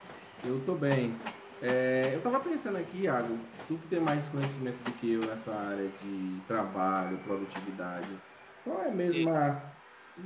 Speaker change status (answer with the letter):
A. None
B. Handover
A